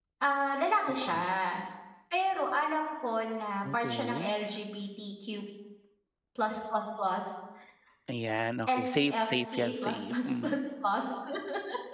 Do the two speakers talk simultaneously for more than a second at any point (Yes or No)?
Yes